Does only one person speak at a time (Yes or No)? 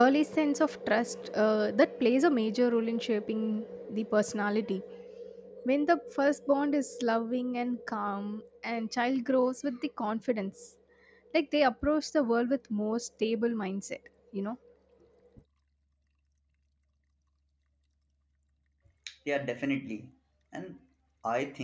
Yes